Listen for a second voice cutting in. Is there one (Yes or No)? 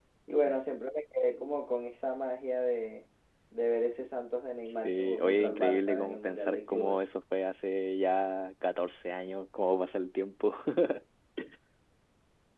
Yes